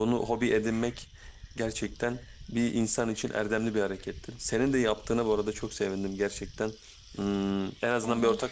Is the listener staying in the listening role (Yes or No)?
No